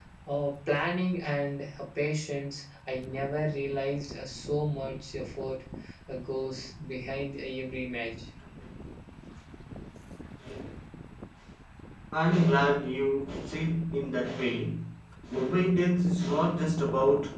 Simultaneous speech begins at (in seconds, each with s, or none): none